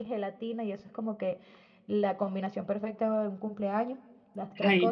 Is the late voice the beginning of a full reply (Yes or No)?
No